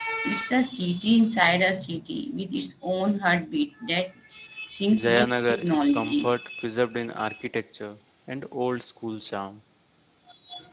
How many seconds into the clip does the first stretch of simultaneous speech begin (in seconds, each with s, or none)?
4.9 s